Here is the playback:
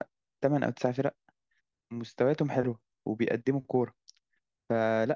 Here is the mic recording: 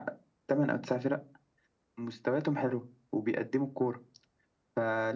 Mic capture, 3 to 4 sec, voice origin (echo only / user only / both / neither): echo only